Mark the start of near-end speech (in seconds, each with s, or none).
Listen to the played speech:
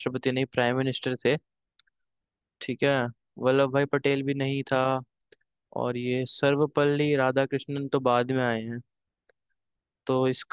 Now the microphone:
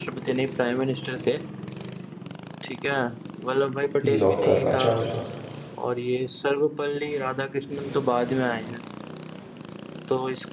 4.0 s